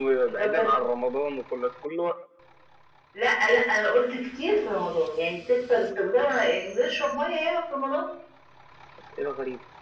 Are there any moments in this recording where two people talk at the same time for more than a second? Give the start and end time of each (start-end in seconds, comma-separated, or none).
none